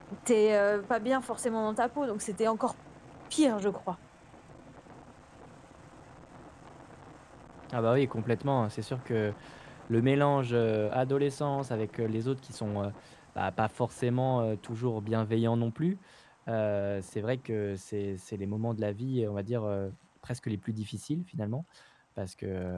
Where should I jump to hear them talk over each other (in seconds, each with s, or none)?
none